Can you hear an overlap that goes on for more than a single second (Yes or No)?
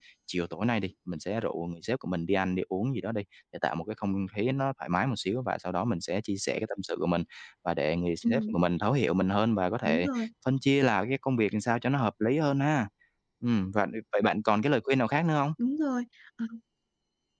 No